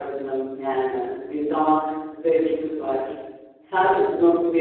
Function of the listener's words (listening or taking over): listening